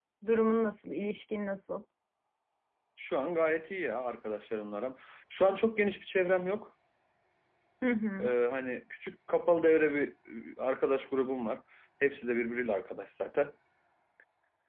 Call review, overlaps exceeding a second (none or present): none